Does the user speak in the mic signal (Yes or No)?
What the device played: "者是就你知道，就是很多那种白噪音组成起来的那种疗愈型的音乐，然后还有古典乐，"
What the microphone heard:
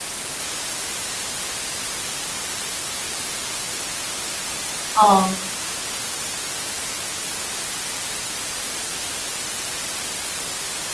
Yes